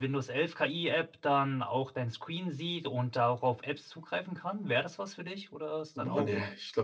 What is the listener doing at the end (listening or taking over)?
taking over